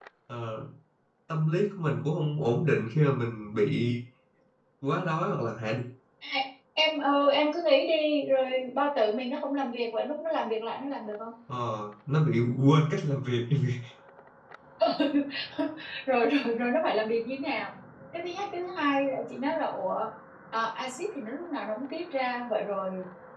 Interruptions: none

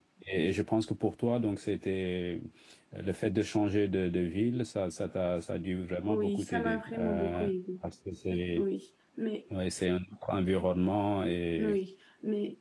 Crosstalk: present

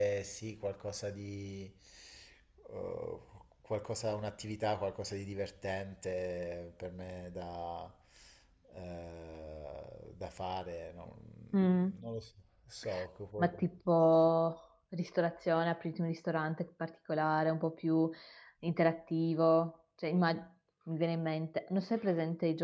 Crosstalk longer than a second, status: none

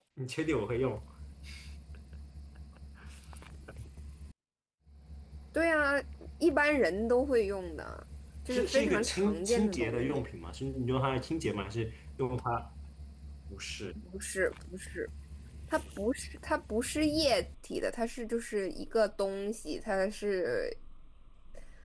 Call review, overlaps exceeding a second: present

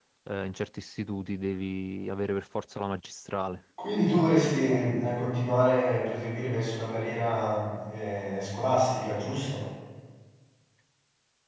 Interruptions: none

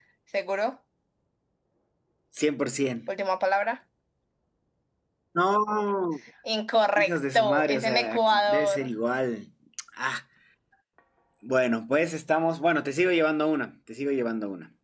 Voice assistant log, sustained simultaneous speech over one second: present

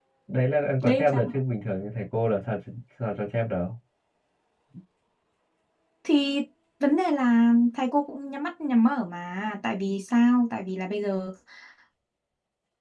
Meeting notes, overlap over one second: none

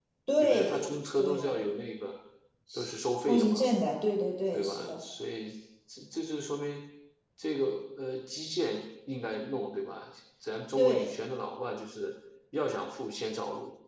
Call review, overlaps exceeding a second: present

